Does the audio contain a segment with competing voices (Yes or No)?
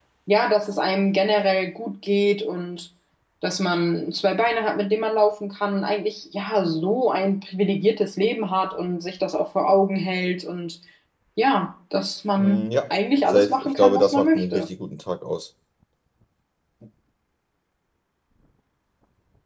Yes